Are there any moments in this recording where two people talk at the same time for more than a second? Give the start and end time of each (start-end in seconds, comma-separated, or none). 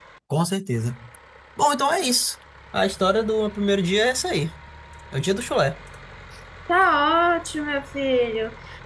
none